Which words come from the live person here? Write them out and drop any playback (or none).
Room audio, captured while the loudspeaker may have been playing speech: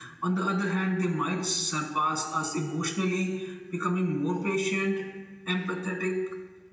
none